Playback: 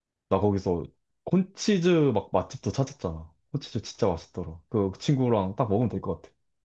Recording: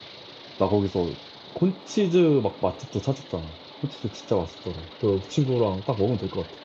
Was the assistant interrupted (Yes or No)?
No